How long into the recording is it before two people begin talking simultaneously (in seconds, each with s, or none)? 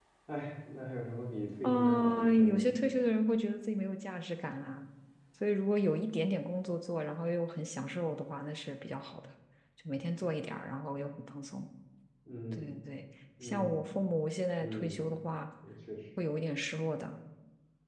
1.6 s